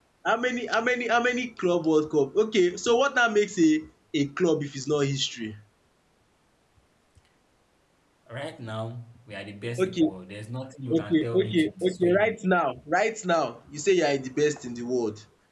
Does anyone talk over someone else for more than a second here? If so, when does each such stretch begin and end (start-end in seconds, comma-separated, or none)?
11.0-12.6